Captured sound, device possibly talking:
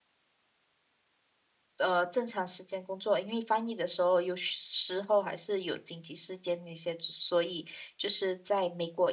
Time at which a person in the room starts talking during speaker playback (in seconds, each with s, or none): 1.8 s